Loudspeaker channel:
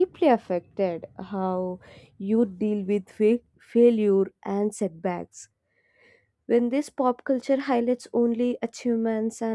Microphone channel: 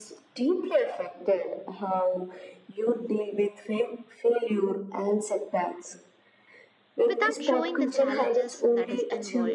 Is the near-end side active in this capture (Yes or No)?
Yes